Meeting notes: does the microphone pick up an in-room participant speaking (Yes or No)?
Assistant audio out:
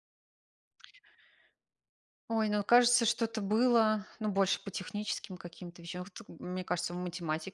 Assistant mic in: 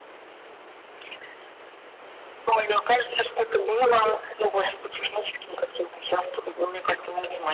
No